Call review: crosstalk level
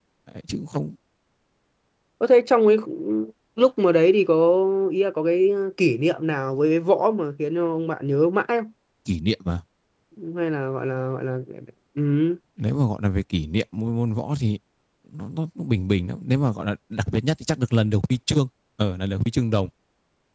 none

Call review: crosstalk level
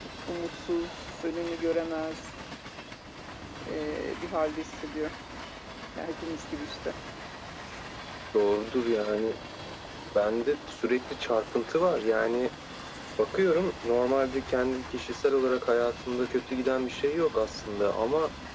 none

